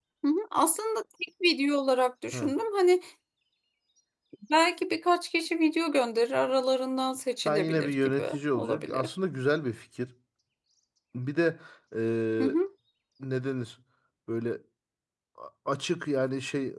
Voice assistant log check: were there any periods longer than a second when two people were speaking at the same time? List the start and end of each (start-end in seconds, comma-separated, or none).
7.4-9.1